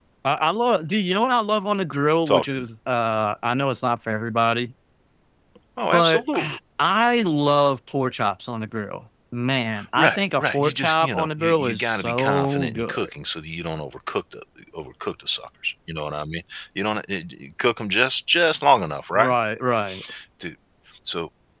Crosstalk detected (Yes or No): Yes